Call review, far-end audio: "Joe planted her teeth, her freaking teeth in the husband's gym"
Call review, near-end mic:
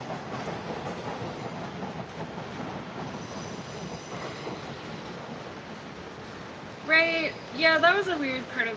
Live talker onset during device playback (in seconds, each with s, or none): 6.8 s